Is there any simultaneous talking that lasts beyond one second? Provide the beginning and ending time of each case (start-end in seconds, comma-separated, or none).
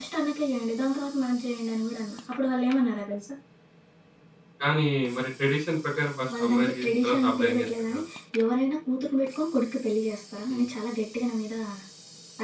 6.3-8.0